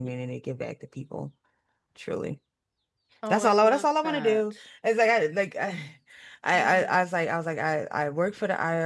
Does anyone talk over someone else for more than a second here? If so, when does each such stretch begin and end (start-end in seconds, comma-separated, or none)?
3.3-4.5